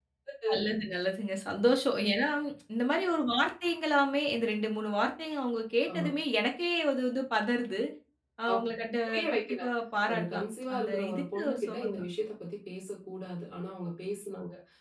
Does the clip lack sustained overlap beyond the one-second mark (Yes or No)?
No